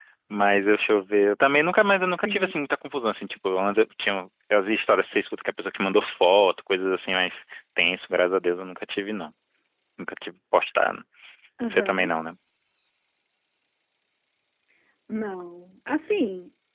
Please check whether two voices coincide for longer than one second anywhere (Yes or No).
No